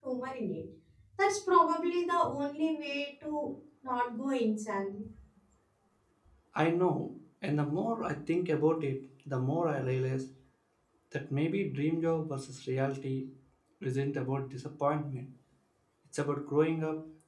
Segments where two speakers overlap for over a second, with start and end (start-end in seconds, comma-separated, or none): none